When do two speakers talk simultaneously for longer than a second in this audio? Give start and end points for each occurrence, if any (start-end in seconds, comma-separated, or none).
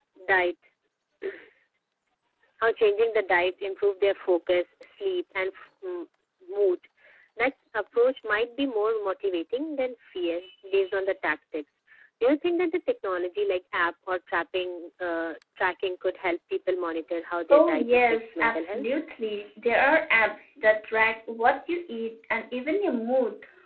17.5-18.8